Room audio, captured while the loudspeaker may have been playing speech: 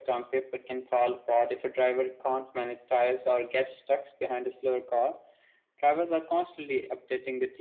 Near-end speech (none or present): none